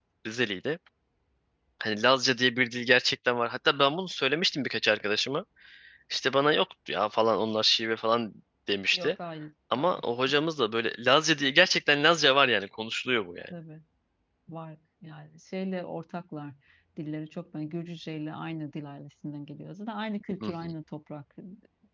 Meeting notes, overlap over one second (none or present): none